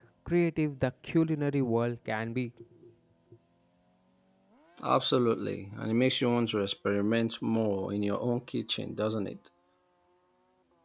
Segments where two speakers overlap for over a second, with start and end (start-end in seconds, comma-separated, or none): none